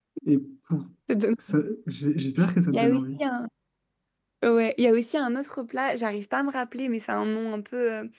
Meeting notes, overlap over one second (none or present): none